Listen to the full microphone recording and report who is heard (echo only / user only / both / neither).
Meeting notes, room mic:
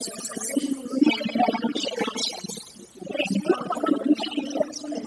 both